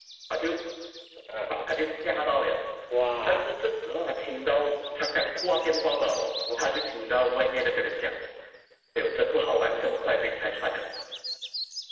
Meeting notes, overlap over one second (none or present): none